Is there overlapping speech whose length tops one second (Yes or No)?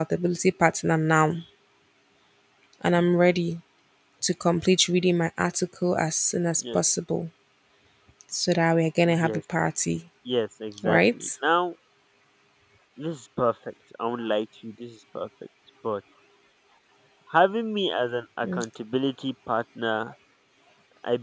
No